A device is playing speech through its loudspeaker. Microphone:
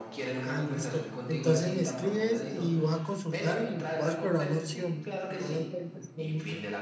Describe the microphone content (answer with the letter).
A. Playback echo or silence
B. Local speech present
B